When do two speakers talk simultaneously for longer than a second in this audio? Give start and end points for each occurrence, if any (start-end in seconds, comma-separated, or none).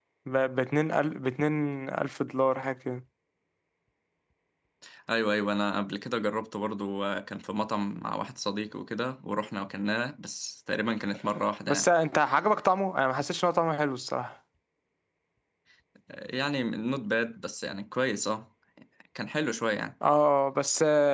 none